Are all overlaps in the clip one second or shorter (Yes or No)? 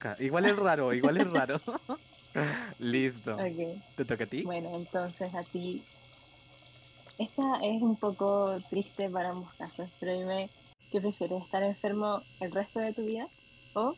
Yes